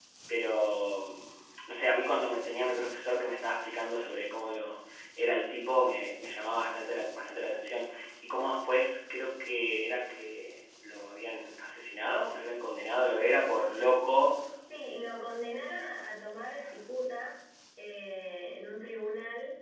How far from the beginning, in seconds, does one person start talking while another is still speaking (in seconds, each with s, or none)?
none